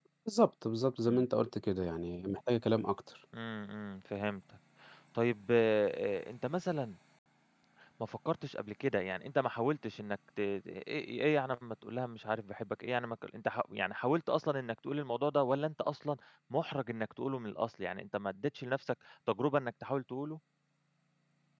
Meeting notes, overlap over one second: none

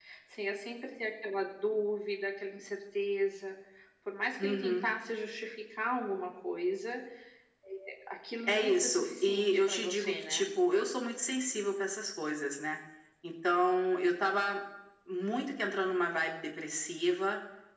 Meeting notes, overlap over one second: present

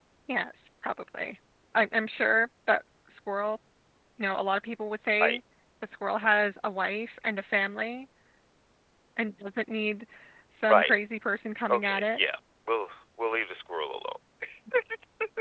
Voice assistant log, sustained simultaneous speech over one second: none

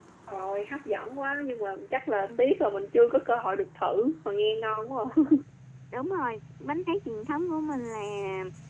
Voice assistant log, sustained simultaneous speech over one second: none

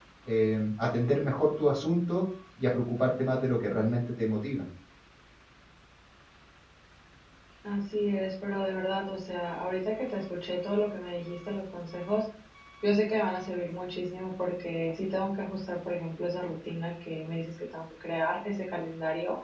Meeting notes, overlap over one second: none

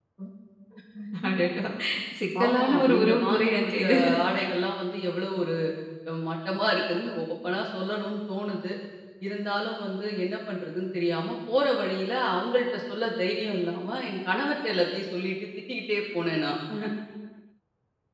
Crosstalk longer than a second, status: present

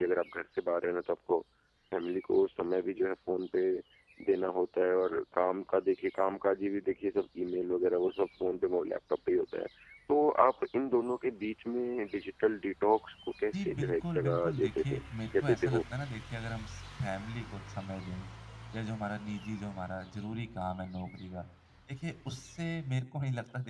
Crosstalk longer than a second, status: present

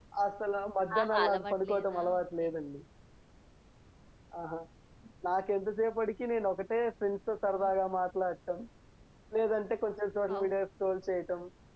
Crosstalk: present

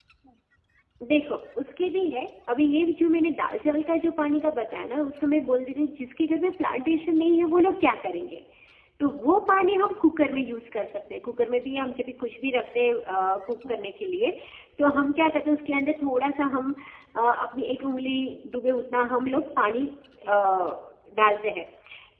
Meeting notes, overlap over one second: none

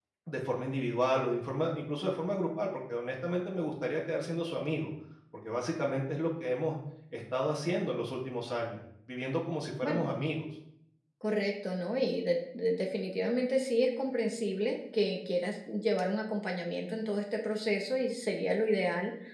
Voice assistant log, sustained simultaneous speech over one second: none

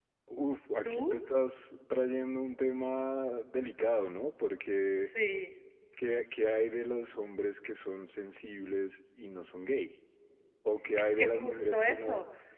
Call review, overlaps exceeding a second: present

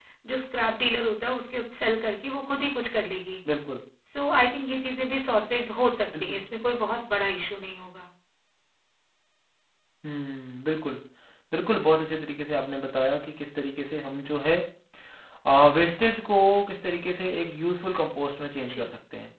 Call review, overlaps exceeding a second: none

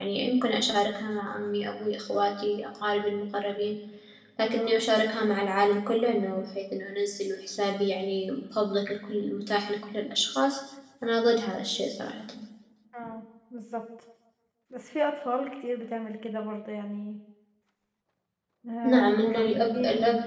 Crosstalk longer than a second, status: present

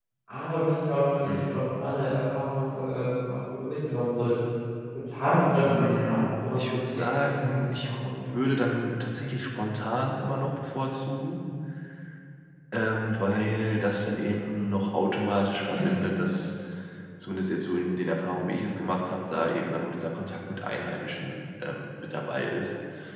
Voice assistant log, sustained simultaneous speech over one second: present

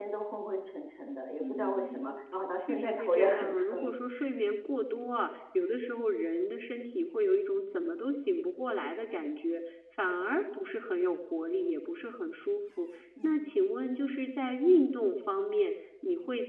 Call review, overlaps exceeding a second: present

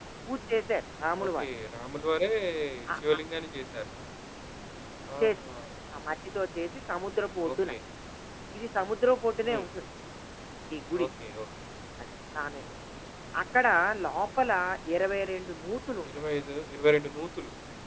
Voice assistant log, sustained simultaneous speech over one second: none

